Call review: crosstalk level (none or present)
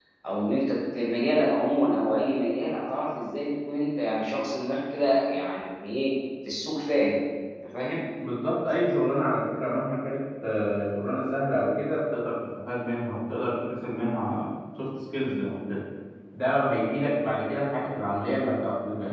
none